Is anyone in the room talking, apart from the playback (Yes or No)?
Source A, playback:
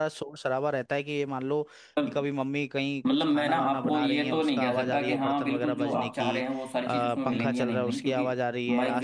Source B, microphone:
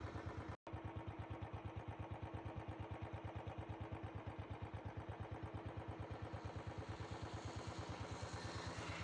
No